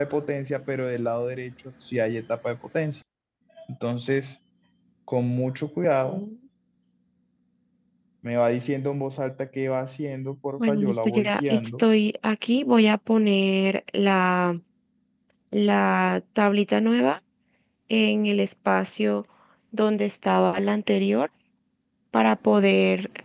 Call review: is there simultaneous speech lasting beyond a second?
Yes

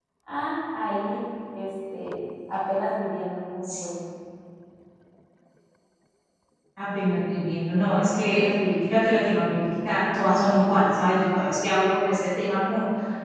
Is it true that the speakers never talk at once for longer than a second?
Yes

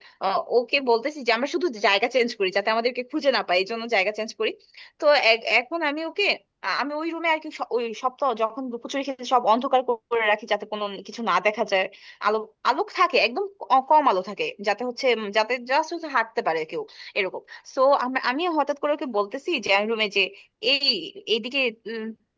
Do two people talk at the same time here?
No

